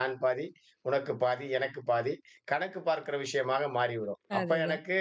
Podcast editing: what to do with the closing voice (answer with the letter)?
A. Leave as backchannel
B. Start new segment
A